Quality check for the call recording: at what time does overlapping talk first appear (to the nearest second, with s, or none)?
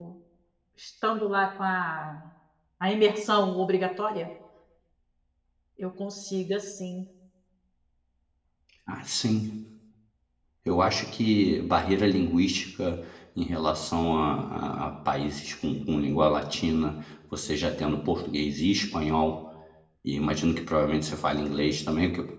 none